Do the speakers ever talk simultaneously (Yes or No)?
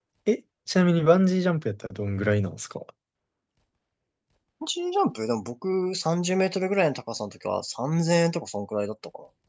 No